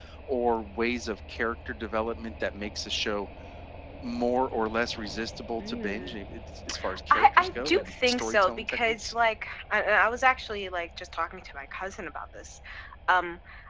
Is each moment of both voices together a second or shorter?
No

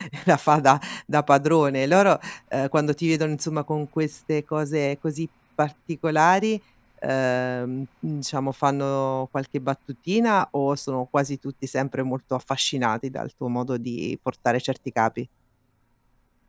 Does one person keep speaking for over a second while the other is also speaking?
No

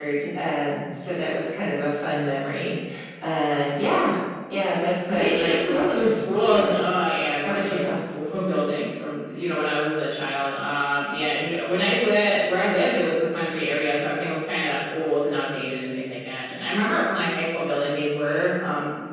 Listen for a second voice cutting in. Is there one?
Yes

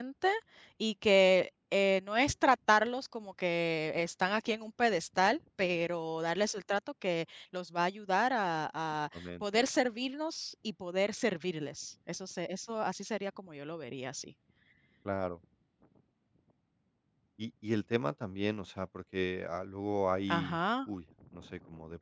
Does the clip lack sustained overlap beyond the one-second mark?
Yes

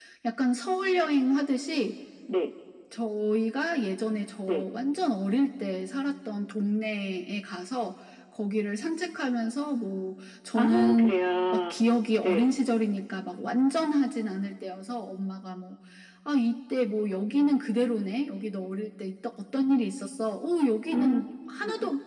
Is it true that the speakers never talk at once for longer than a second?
Yes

